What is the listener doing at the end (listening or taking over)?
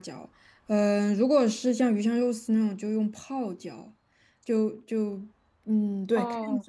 listening